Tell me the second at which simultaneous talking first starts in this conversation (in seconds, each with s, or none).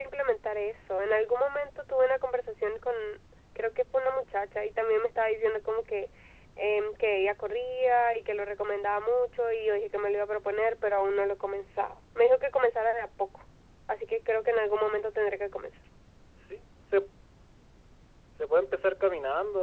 none